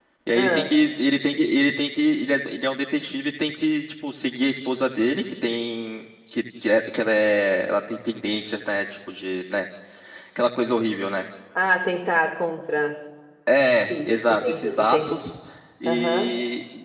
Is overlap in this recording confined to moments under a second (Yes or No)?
No